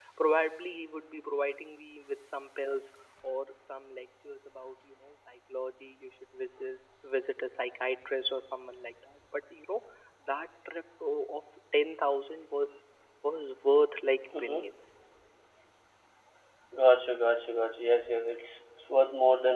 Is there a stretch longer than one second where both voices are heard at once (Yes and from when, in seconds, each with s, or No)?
No